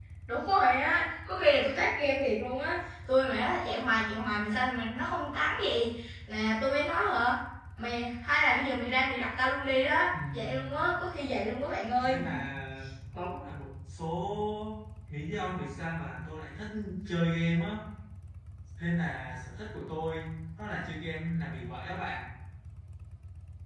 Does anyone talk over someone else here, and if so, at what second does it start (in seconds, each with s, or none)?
10.1 s